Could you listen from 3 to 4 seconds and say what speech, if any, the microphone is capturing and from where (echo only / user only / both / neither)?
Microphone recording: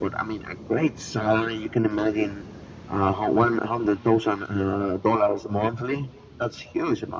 echo only